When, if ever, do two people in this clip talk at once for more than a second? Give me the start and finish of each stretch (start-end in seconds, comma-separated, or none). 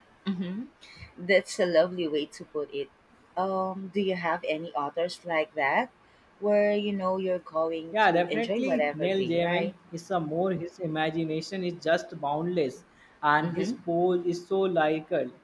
7.9-9.7